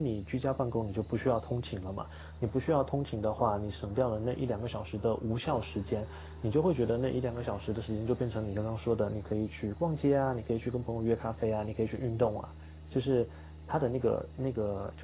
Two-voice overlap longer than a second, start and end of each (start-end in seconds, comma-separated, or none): none